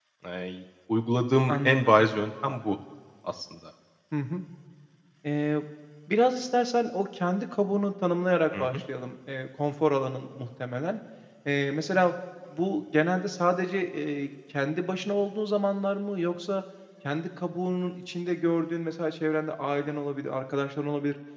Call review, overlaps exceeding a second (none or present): none